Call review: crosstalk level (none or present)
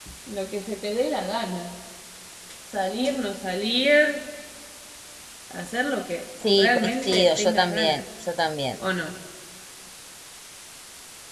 present